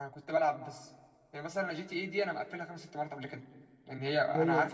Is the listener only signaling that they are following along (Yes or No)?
Yes